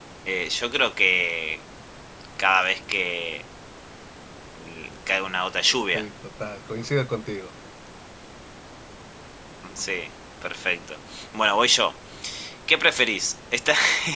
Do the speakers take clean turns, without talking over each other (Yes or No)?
Yes